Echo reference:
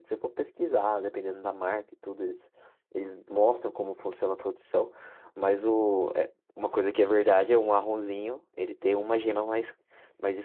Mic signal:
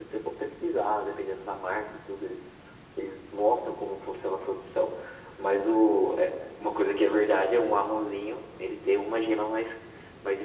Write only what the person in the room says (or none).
none